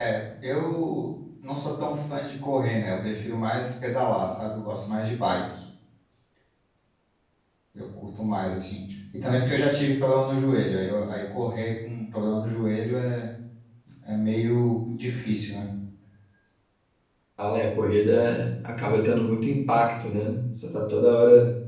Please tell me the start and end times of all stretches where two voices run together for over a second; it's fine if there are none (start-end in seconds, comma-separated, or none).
none